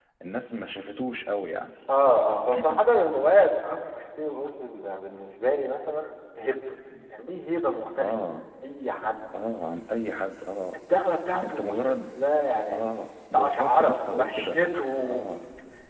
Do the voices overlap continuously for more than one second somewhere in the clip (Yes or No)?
Yes